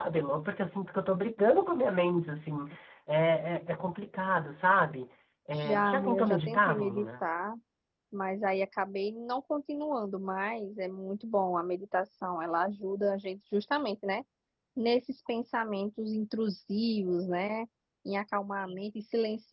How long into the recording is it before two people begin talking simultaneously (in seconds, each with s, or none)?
5.6 s